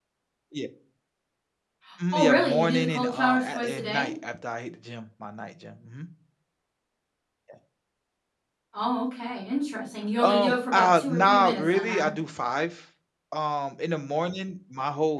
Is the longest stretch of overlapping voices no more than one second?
No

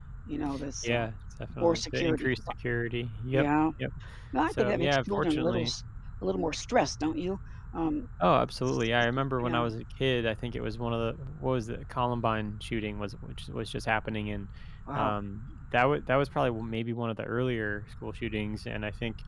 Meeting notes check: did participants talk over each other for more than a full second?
Yes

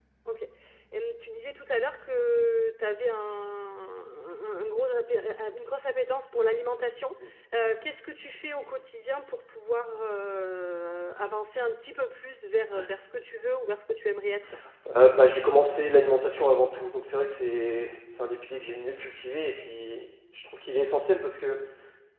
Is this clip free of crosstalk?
Yes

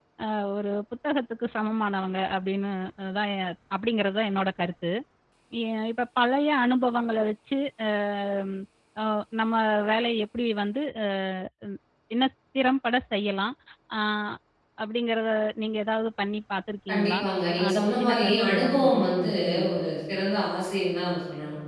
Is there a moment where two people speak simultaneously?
Yes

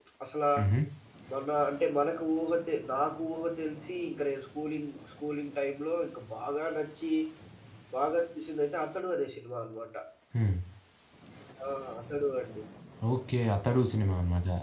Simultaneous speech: No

